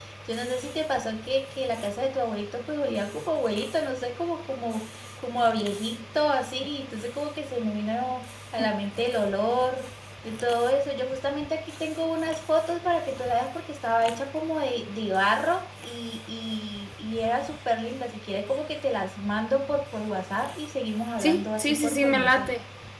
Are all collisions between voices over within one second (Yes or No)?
No